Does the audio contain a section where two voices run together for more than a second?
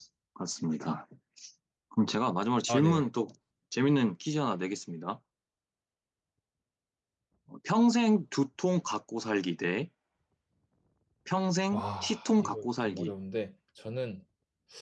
Yes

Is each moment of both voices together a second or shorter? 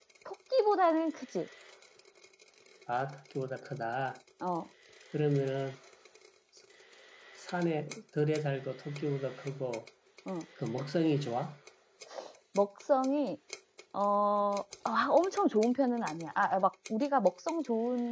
Yes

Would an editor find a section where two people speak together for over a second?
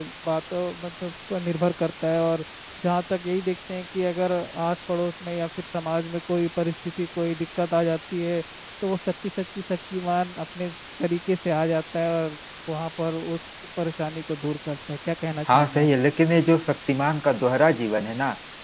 No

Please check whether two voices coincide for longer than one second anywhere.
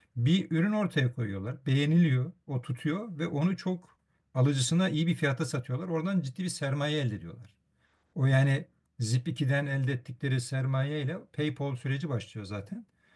No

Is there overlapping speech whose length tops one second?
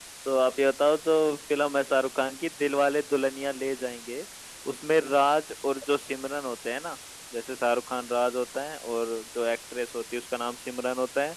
No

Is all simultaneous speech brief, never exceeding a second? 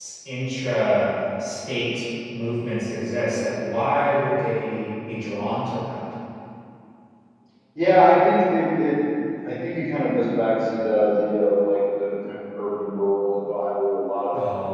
Yes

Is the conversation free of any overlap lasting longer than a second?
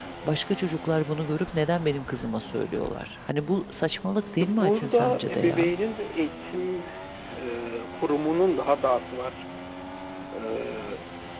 No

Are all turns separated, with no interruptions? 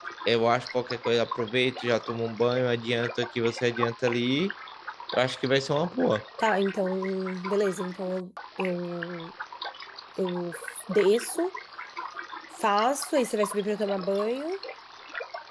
Yes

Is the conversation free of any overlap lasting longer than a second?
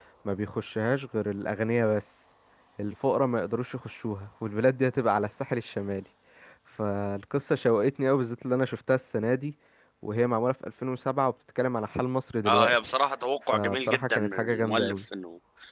No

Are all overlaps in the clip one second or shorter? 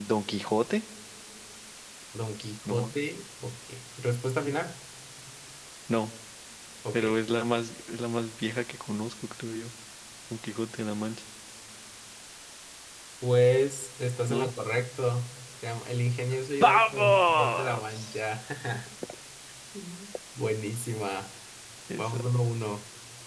No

